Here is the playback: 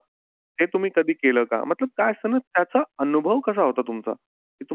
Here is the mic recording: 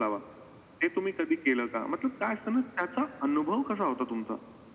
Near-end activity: none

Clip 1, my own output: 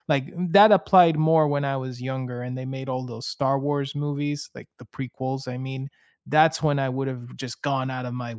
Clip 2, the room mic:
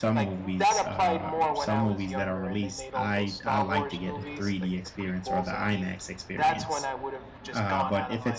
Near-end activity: present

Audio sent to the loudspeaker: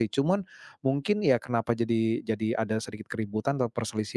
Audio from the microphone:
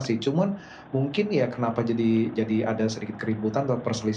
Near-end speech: none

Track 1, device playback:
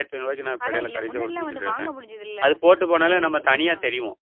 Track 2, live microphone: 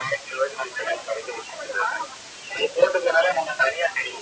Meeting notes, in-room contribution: none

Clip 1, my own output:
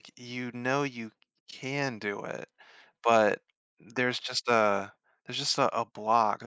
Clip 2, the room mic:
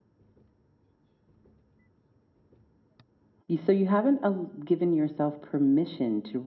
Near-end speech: present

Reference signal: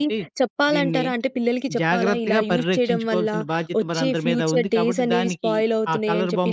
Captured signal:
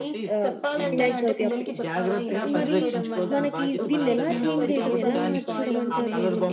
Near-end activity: present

